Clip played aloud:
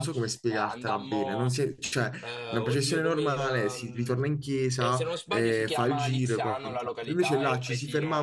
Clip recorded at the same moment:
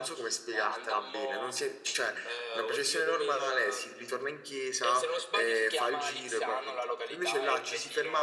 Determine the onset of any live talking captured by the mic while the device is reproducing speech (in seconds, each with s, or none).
none